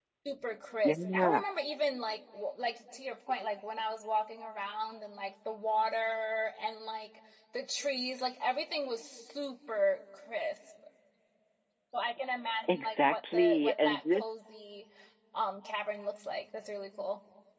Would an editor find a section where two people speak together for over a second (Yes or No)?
Yes